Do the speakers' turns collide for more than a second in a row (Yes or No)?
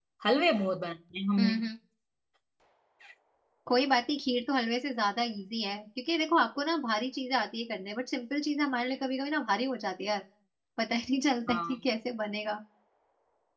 No